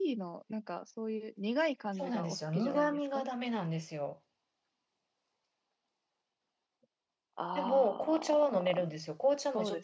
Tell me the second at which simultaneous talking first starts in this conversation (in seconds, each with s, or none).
2.0 s